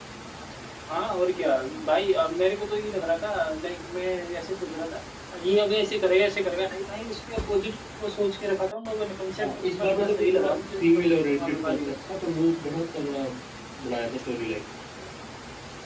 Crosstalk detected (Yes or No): Yes